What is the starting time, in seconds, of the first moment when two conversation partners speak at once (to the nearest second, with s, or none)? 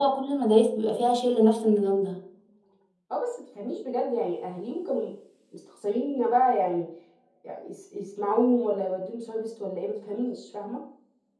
none